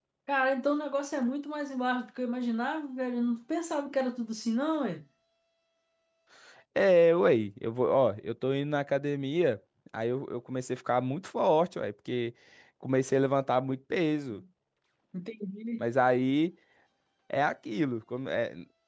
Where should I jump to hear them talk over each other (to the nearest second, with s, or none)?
none